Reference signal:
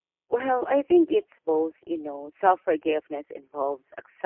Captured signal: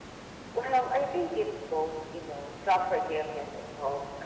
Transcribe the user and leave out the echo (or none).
none